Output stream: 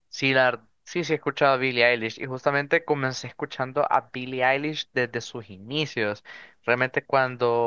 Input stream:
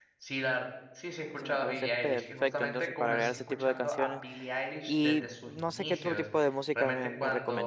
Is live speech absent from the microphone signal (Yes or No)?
No